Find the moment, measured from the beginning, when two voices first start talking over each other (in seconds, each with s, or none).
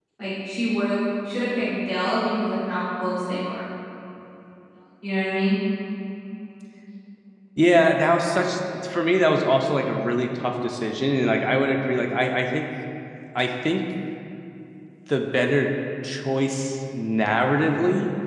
none